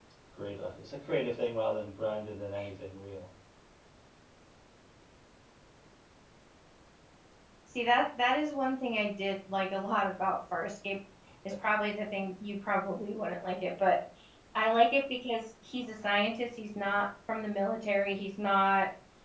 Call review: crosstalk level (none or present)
none